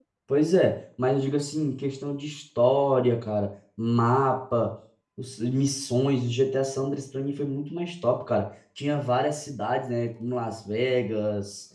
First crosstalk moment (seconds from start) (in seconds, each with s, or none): none